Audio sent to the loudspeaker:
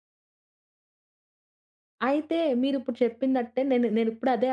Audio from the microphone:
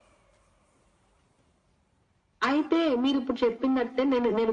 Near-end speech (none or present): none